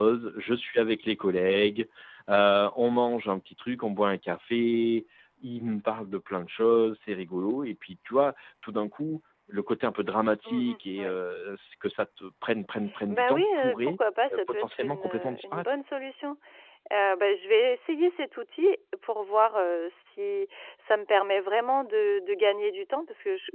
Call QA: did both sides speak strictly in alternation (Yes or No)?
No